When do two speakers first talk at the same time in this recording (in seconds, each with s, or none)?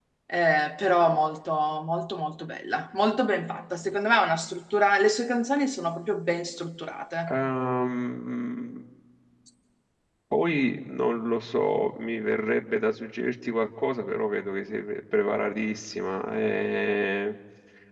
none